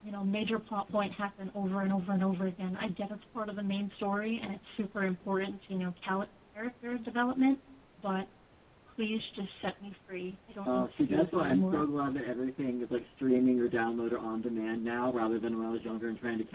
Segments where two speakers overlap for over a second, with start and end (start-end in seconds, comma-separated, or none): 10.7-11.8